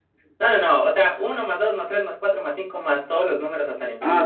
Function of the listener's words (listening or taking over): taking over